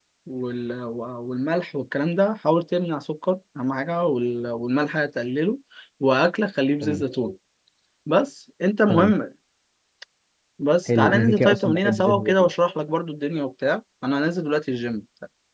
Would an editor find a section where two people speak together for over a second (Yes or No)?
Yes